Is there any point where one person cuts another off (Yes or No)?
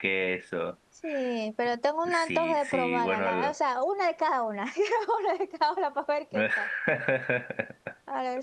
Yes